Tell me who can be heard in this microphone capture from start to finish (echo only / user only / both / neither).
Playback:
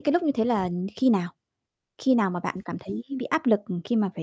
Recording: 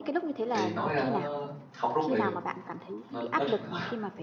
both